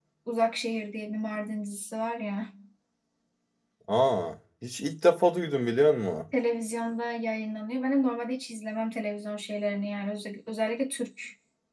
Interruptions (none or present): none